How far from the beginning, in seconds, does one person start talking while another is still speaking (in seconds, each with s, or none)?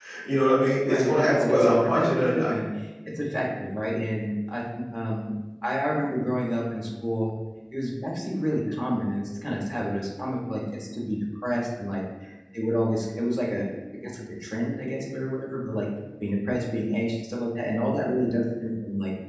0.8 s